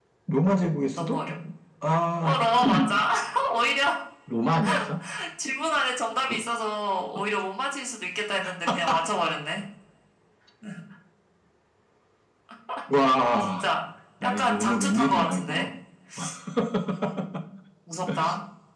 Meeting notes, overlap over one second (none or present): present